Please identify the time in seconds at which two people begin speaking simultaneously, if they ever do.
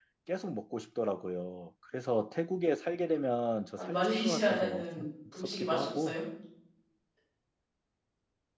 4 s

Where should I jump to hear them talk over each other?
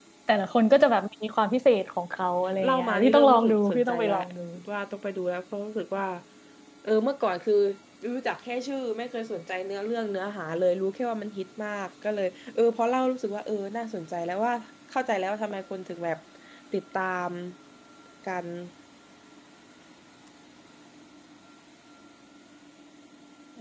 2 s

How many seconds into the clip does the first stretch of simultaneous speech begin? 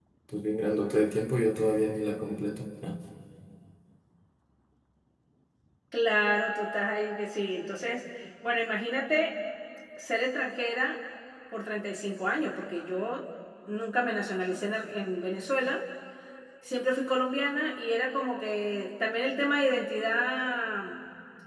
none

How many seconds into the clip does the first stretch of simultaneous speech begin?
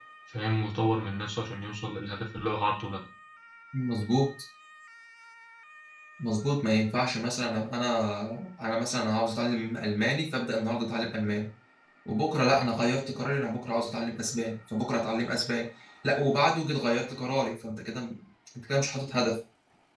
none

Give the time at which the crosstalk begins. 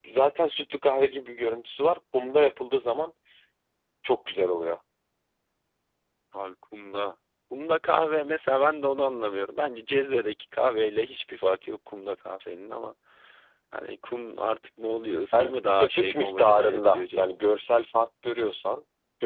15 s

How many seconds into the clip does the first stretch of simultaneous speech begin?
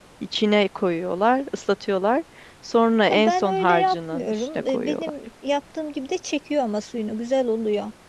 3 s

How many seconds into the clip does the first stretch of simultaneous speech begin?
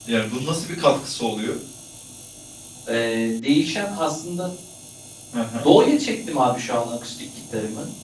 none

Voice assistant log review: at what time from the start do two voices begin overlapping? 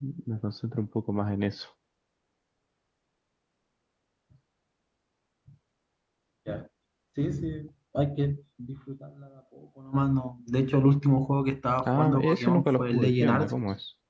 12 s

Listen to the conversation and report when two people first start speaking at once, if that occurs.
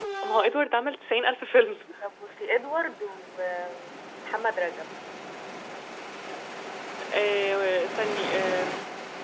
none

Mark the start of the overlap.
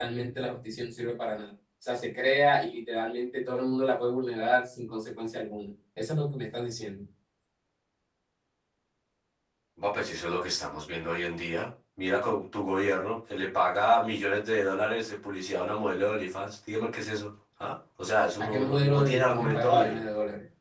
18 s

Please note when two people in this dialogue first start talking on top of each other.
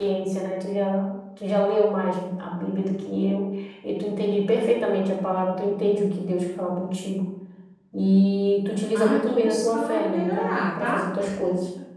9 s

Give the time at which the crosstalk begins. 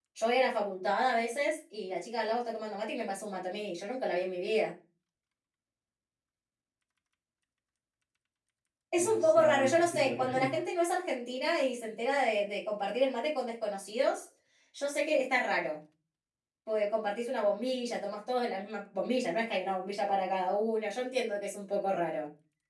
9 s

